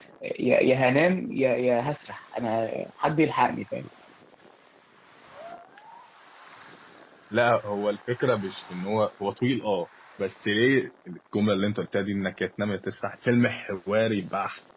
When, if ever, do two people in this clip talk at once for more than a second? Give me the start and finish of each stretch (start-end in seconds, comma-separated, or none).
none